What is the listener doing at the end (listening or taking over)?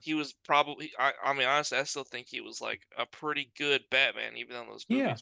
taking over